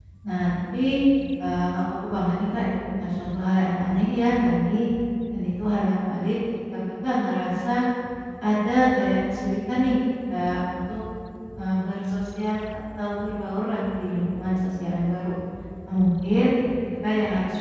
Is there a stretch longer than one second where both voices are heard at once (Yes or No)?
No